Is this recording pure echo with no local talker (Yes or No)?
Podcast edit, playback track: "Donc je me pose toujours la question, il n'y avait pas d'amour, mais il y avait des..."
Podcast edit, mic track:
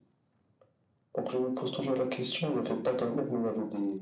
Yes